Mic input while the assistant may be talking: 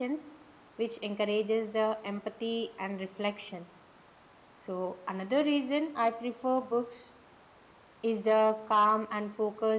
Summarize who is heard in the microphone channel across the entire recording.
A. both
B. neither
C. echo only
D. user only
D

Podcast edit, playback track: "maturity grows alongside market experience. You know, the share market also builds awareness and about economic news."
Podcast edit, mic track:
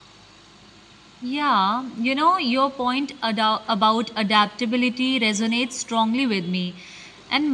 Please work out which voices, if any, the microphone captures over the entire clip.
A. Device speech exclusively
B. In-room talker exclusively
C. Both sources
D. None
B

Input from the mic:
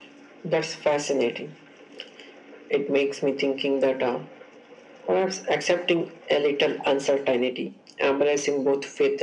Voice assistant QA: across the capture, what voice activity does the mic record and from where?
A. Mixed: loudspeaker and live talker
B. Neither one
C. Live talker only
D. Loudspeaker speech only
D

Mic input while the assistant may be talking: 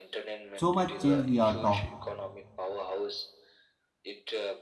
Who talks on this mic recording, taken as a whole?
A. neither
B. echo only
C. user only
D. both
D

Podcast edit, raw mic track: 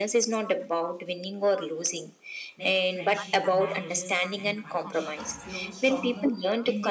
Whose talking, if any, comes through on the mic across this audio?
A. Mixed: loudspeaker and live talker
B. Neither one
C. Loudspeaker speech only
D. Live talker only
A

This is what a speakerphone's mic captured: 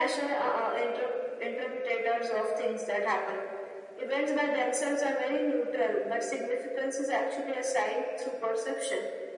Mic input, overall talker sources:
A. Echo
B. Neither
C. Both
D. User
A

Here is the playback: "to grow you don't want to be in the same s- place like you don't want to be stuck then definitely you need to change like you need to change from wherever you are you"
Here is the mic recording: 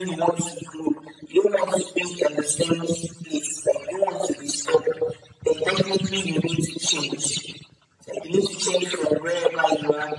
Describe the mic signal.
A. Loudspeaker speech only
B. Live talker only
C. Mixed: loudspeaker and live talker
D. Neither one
A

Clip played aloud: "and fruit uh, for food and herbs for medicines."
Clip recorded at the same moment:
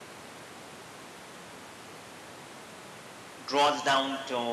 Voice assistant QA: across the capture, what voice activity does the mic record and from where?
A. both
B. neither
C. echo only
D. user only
D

